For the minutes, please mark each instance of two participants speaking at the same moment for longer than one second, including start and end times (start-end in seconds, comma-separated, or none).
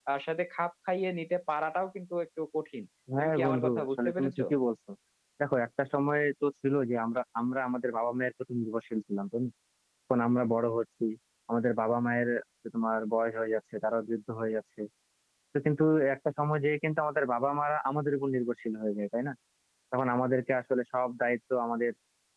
3.2-4.4